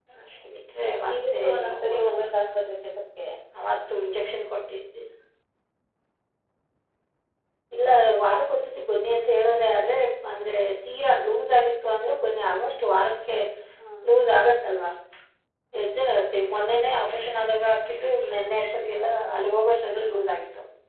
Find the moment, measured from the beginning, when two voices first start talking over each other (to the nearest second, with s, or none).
1 s